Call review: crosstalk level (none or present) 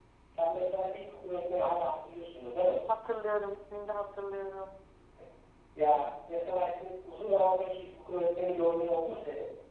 none